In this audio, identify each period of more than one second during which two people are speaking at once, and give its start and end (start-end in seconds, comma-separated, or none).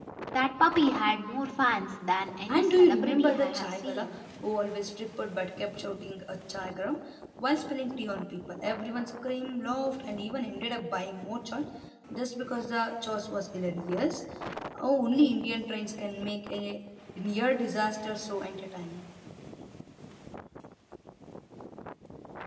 2.5-4.1